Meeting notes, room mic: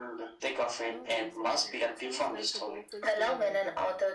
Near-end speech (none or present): present